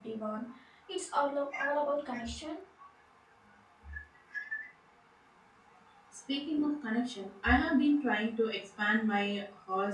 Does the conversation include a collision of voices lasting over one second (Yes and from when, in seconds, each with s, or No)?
No